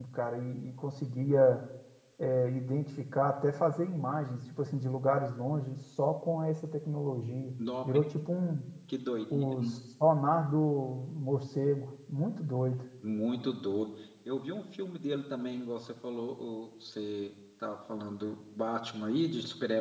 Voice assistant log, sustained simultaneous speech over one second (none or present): none